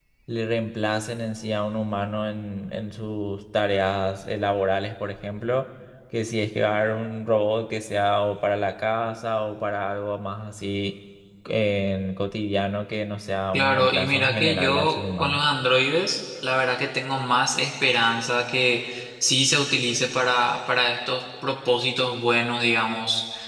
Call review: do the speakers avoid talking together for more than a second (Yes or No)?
No